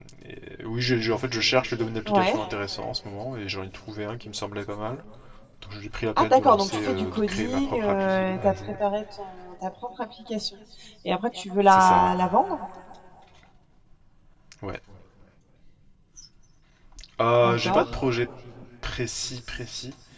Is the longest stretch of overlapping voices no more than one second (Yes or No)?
No